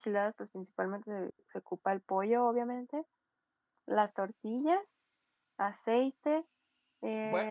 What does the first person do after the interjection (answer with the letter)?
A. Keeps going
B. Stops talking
B